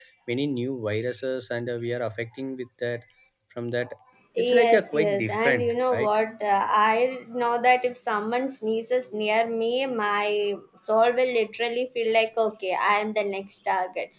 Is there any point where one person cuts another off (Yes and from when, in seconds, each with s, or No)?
Yes, from 4.4 s